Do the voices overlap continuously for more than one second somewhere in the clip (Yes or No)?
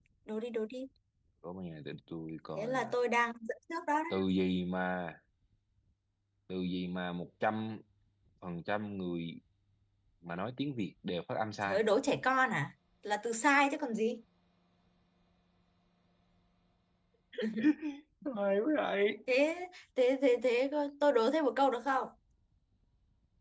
No